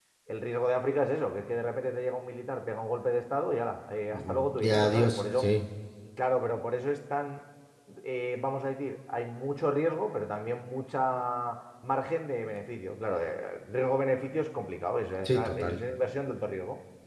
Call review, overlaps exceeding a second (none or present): present